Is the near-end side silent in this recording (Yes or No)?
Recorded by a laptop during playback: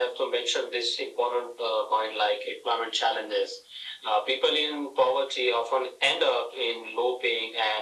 Yes